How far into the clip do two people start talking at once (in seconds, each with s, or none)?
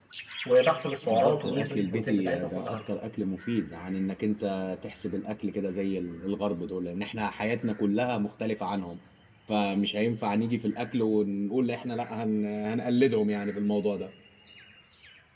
1.1 s